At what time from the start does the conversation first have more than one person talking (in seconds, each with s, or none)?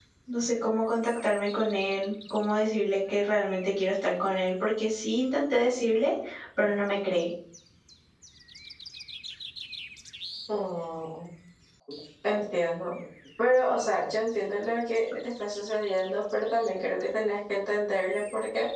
none